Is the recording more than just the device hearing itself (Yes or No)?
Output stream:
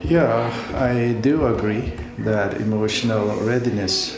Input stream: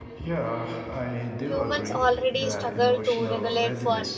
Yes